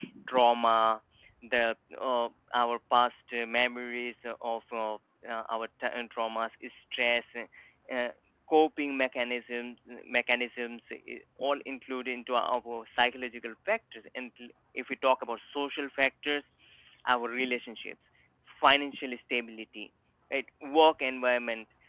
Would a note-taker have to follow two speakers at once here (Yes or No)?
No